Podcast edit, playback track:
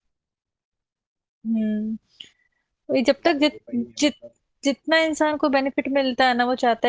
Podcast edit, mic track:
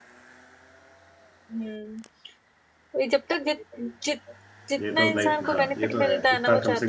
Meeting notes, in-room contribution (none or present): present